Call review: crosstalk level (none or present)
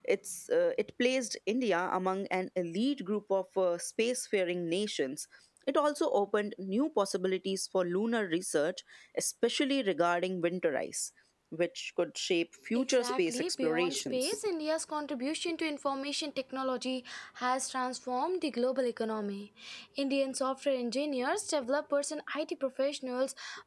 present